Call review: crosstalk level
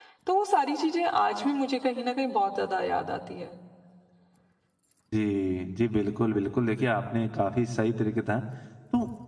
none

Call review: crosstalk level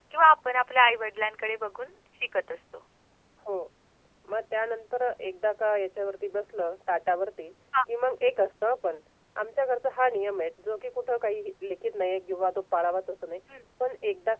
none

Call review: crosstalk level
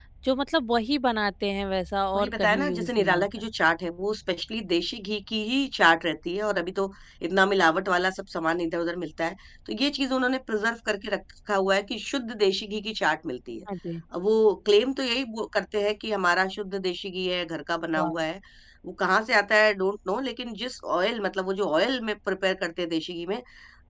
present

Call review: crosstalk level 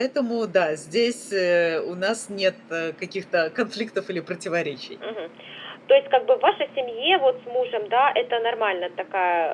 none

